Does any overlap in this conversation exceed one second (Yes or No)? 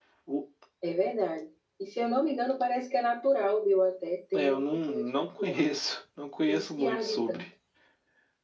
Yes